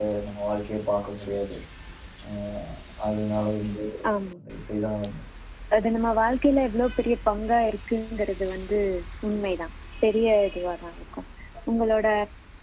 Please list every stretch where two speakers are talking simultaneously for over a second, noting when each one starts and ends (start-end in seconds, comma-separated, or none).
none